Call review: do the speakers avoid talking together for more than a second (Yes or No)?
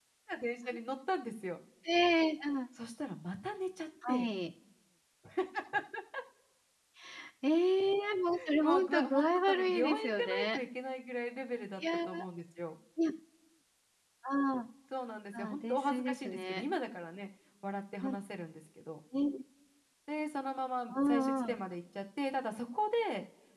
No